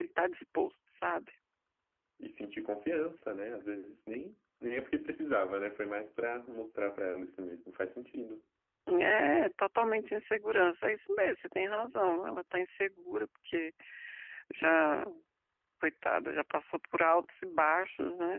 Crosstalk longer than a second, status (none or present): none